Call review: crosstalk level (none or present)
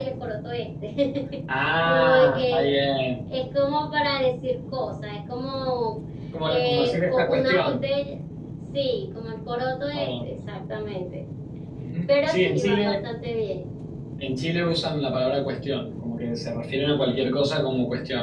present